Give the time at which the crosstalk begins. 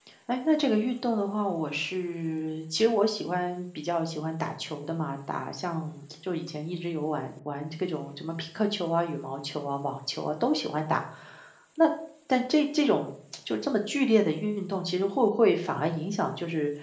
none

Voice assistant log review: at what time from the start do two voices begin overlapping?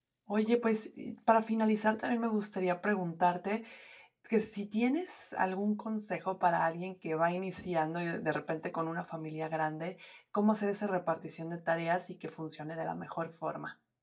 none

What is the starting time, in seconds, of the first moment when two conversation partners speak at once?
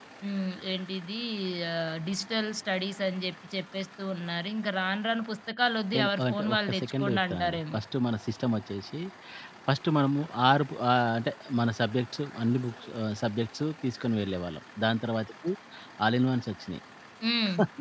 5.9 s

